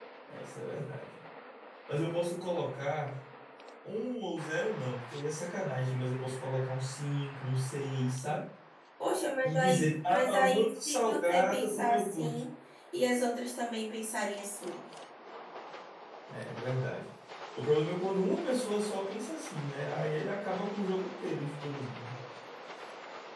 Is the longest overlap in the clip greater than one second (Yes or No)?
Yes